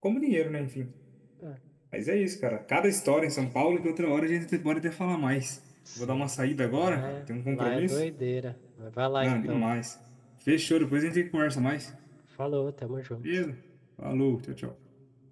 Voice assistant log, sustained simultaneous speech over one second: present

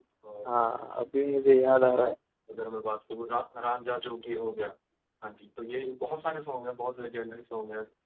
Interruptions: none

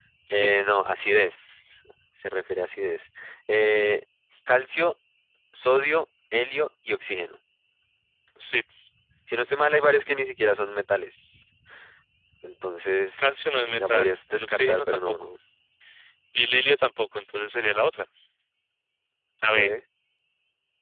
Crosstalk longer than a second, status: present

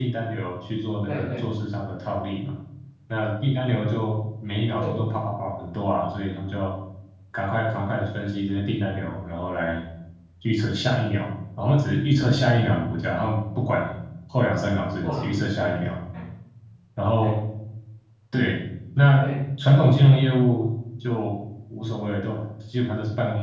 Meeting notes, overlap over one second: none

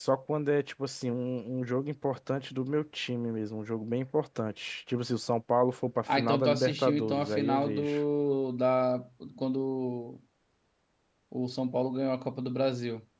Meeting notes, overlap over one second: present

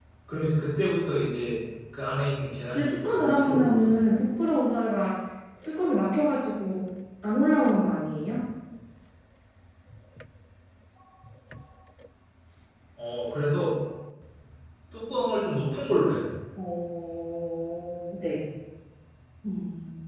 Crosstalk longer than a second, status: present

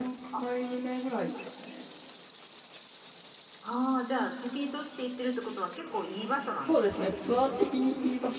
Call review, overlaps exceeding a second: none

